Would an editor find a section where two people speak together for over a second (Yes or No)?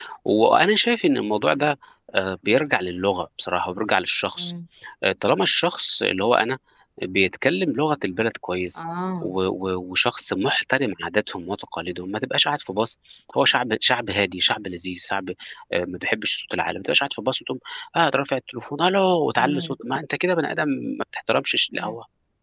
No